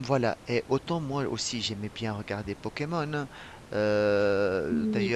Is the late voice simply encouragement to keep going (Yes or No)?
Yes